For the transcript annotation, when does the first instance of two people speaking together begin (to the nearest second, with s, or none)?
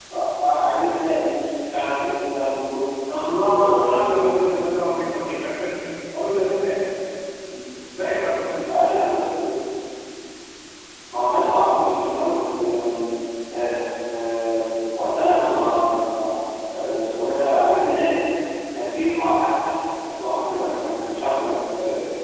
3 s